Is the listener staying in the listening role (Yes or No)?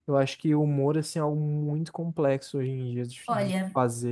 No